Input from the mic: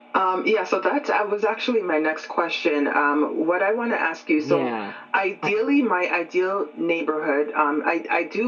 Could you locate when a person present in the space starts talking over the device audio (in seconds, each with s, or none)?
4.4 s